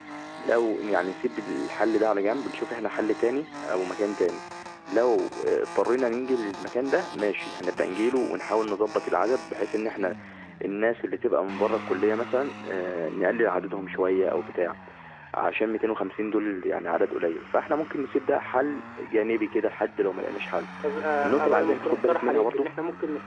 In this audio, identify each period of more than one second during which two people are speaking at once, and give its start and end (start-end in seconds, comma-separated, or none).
21.2-22.7